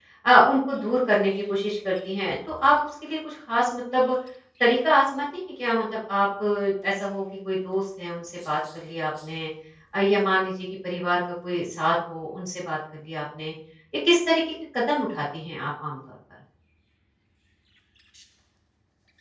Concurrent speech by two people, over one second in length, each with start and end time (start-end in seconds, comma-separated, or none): none